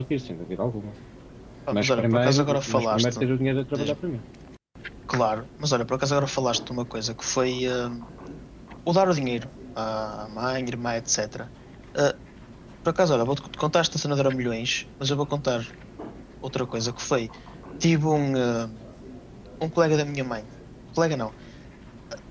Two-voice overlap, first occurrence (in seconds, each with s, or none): 1.7 s